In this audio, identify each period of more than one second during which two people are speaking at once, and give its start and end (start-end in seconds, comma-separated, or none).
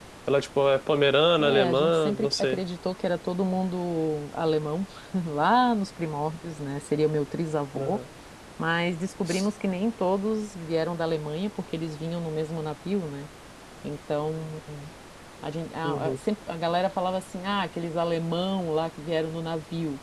1.4-2.6